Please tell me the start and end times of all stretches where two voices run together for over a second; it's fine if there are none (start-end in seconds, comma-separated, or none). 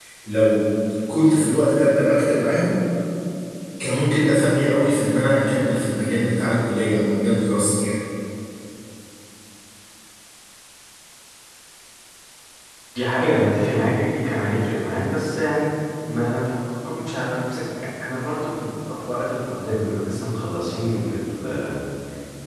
none